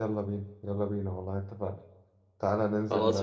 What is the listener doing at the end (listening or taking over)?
listening